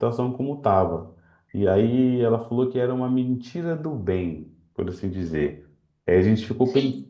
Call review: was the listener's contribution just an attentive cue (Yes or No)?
Yes